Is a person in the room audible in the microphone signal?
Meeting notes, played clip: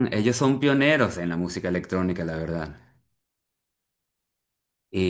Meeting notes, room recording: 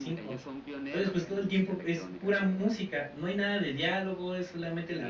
Yes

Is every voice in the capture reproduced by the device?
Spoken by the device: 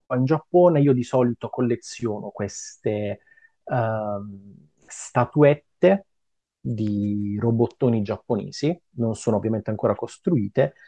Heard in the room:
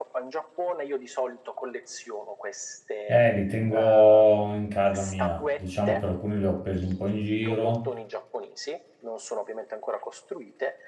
No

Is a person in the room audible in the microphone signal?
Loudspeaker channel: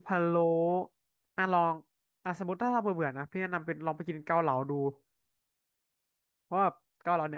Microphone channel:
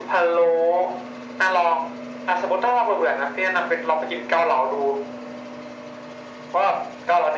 No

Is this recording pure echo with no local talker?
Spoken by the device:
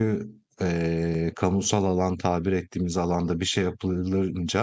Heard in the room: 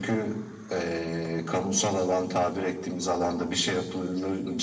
Yes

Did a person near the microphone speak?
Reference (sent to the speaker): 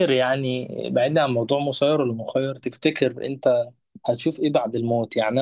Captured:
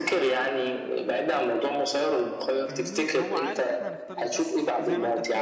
Yes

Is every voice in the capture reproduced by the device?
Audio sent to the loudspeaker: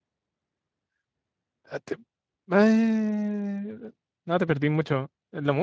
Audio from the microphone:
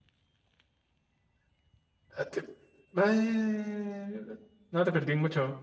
Yes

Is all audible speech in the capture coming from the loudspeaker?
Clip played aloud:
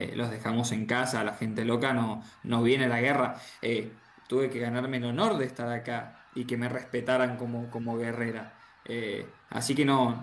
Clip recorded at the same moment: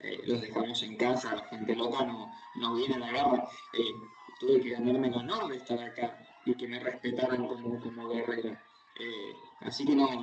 Yes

